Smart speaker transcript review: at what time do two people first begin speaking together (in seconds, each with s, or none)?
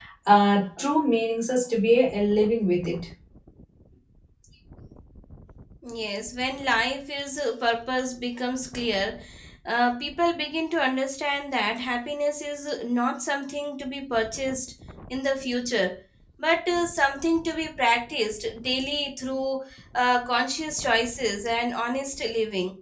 none